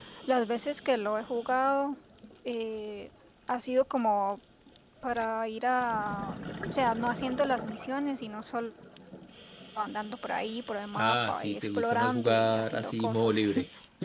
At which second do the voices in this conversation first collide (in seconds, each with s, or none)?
10.9 s